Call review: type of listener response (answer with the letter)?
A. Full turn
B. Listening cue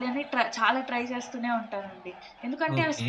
A